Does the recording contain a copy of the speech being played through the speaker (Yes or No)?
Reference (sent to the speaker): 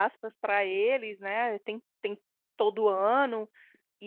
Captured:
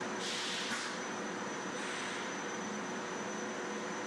No